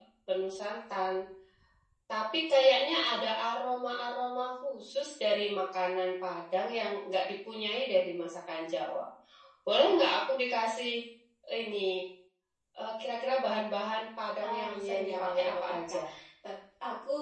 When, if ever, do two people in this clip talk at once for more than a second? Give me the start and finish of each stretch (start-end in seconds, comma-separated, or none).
14.4-16.0